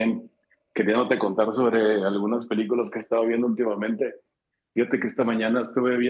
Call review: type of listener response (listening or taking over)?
listening